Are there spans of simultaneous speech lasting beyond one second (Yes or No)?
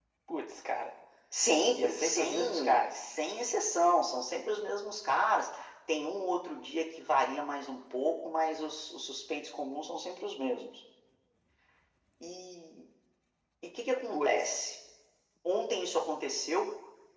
Yes